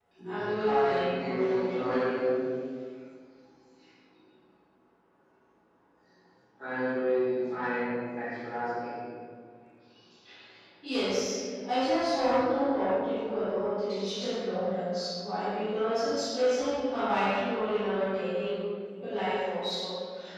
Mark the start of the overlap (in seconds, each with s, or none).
0.6 s